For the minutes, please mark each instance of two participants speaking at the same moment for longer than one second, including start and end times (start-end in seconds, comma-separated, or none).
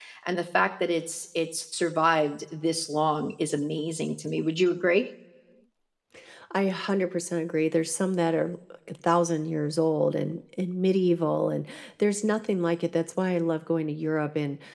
none